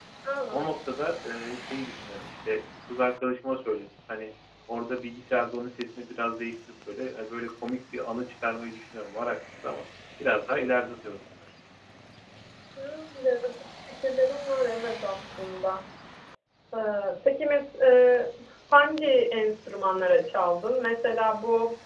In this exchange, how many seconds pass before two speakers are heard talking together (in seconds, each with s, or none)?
none